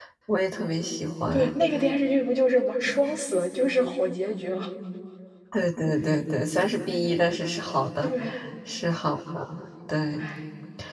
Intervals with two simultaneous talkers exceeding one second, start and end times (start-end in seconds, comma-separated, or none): none